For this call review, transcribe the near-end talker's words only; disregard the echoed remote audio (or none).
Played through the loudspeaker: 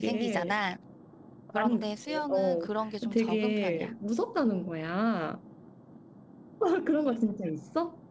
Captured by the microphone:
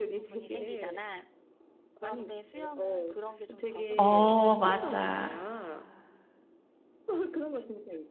어, 맞아.